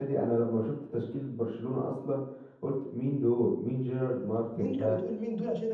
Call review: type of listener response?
taking over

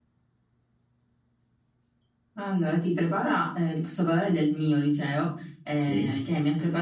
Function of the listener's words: listening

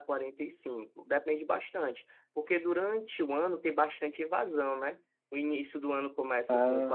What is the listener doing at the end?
listening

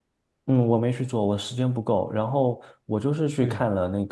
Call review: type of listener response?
listening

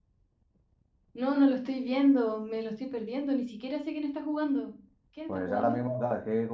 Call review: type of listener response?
taking over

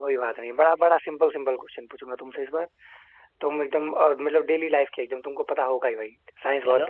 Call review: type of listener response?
listening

